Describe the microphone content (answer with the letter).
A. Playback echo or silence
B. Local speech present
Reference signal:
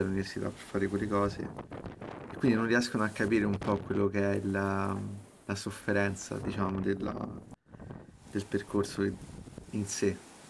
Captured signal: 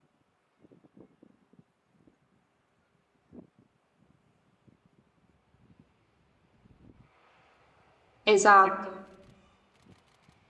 B